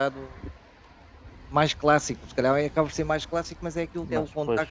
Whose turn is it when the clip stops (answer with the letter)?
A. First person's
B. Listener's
A